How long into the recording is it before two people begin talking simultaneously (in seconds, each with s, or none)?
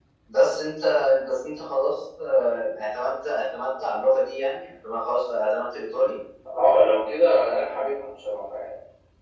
none